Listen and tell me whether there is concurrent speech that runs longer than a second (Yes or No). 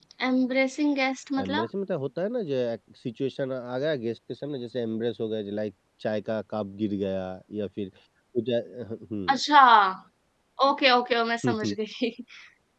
No